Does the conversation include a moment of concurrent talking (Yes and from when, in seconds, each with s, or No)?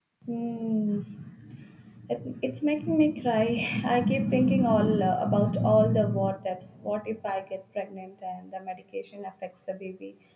No